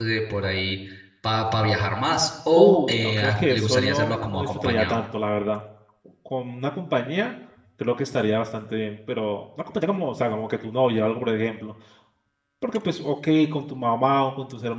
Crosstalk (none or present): present